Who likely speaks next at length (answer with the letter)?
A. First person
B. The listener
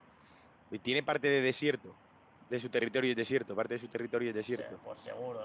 B